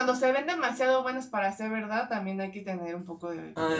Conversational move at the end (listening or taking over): taking over